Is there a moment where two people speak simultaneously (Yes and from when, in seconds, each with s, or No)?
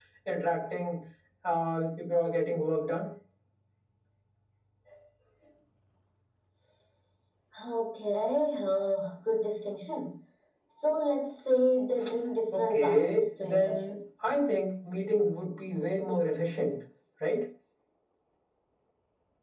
Yes, from 12.5 s